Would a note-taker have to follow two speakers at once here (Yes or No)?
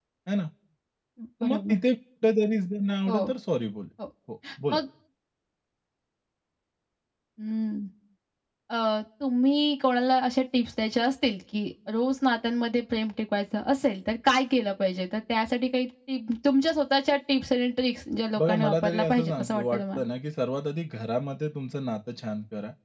Yes